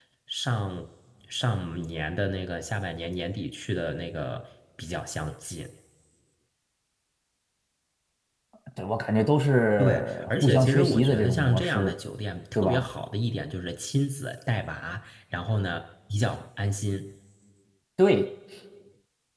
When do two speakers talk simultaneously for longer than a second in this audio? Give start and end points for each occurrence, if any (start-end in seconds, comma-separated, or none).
9.8-11.9